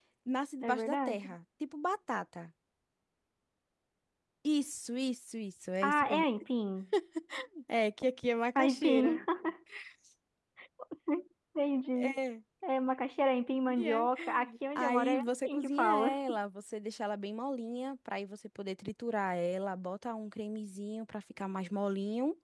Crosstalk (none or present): present